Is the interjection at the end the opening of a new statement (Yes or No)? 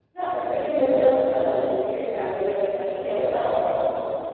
Yes